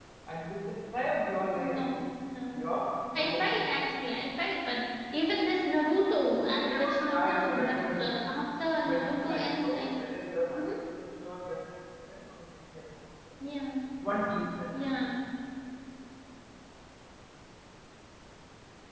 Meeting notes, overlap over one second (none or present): present